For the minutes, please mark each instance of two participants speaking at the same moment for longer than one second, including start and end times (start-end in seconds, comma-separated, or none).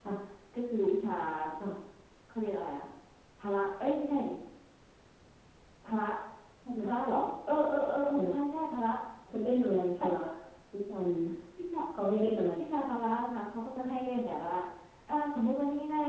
none